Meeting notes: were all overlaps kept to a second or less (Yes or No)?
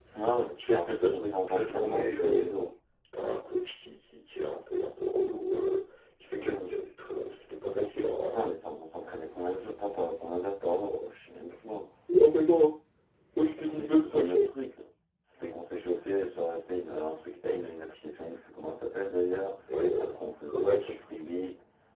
No